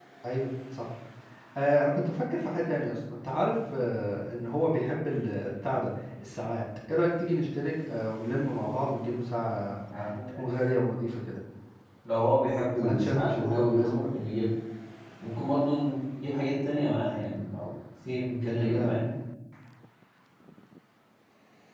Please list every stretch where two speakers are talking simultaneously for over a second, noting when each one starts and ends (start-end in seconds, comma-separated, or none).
12.8-14.1